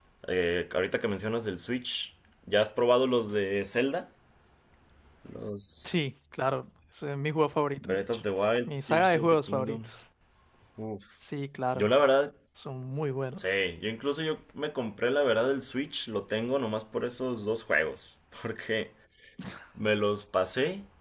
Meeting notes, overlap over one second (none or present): present